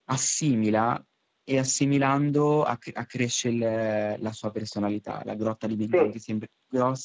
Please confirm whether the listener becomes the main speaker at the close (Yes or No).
No